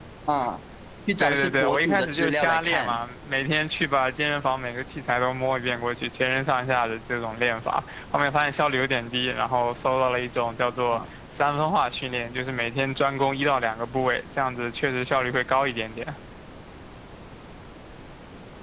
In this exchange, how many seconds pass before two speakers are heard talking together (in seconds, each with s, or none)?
1.2 s